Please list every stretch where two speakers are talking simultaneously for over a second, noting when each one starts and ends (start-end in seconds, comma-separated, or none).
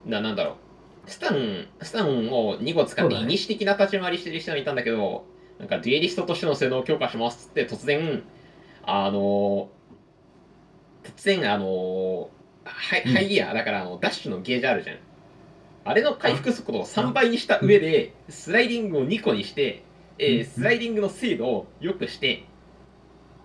none